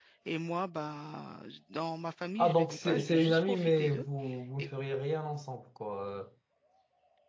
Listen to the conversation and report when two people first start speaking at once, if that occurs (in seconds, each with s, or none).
2.4 s